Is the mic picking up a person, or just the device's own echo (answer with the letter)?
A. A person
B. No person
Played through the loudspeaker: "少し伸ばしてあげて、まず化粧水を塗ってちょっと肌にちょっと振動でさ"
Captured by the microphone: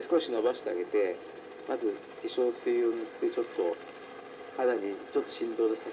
B